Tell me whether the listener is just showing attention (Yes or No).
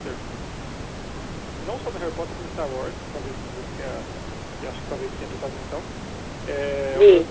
Yes